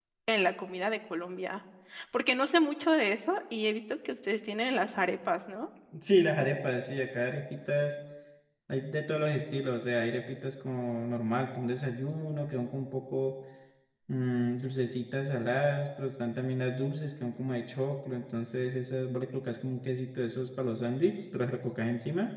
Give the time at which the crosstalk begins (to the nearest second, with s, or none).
none